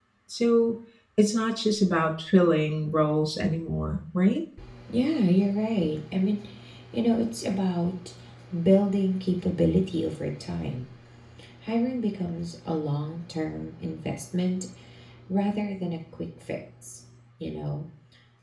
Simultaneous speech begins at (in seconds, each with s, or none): none